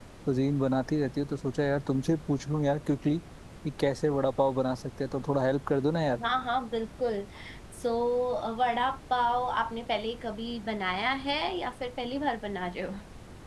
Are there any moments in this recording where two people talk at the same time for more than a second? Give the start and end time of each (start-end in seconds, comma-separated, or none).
none